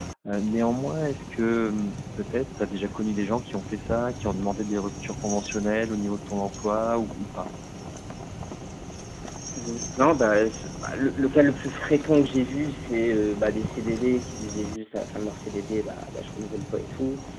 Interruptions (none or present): none